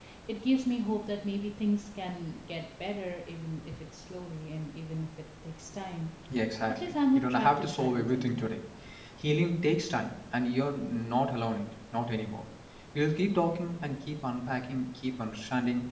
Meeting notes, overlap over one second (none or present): present